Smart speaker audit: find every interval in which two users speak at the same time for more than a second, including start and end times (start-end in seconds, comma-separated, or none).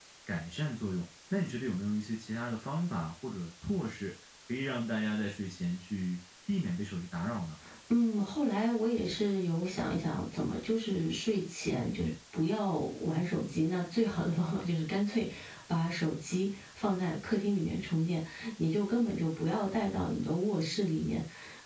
none